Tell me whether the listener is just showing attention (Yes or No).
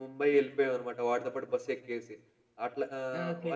Yes